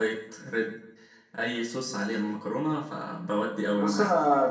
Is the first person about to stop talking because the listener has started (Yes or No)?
Yes